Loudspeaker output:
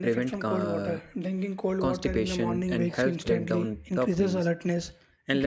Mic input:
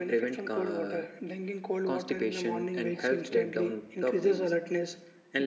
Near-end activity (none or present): none